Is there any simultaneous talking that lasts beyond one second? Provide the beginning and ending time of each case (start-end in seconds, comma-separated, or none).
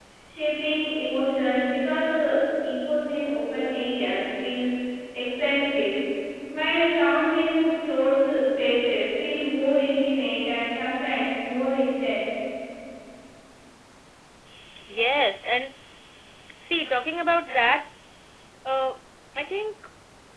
none